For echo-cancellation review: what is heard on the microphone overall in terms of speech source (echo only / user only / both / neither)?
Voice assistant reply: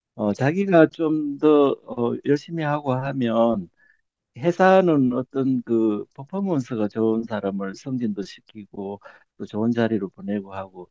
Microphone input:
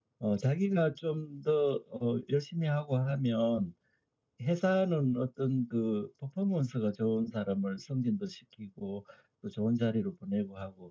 echo only